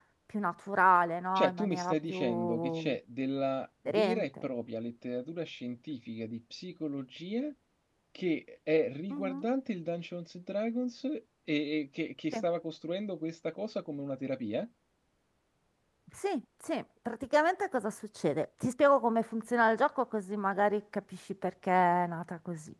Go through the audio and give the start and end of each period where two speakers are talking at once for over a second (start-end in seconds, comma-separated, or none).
1.4-3.0